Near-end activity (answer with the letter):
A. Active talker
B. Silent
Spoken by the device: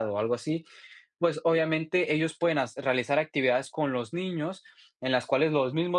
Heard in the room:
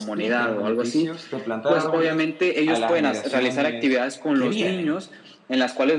A